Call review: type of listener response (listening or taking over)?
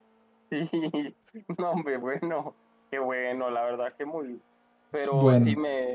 listening